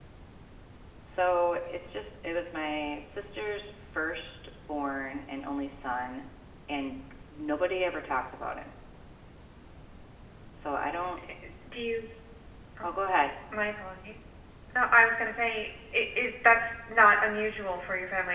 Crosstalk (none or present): none